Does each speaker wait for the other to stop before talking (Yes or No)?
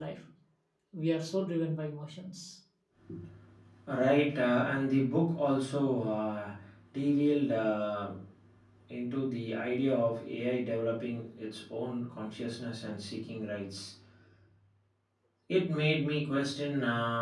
Yes